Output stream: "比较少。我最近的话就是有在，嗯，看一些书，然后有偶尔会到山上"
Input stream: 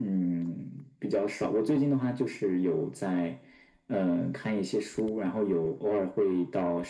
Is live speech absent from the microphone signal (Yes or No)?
Yes